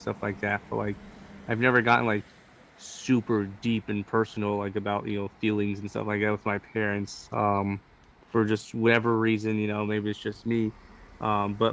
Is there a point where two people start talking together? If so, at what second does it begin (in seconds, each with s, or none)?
none